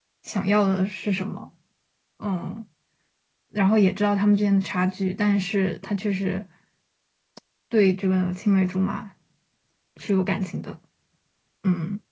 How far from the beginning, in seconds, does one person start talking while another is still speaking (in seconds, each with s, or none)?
none